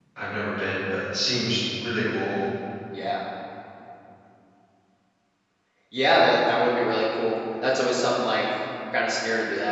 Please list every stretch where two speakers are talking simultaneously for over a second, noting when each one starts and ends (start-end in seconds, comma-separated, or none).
none